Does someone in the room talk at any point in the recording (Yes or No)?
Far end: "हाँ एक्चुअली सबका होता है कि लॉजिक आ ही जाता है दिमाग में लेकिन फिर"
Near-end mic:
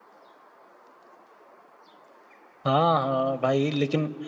Yes